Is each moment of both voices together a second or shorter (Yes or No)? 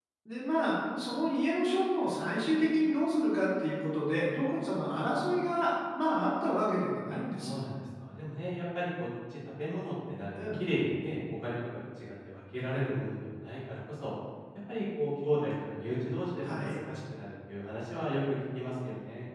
Yes